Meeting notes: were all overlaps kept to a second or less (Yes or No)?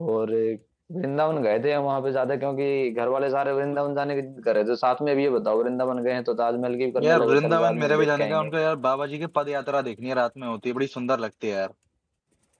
No